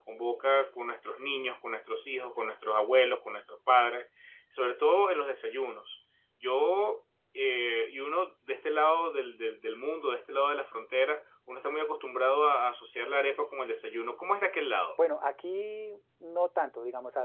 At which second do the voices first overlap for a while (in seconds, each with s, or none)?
none